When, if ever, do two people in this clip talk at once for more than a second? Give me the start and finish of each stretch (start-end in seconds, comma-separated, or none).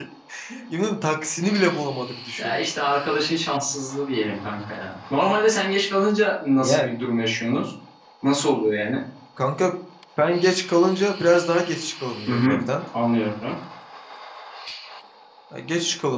none